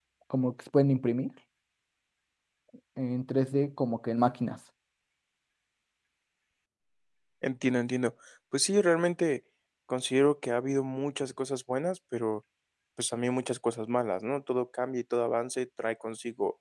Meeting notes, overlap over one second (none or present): none